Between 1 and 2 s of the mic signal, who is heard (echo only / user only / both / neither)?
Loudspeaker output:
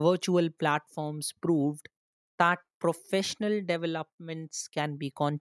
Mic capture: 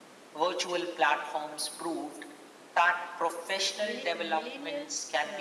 echo only